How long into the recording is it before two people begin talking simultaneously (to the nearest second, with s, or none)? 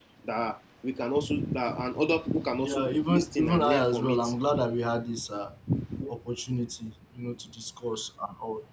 3 s